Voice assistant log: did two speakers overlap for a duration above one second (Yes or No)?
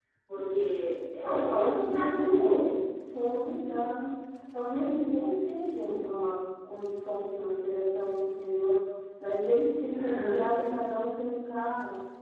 Yes